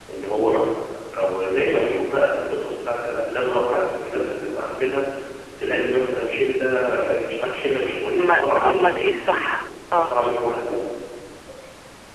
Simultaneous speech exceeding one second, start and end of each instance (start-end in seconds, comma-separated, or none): 8.2-9.5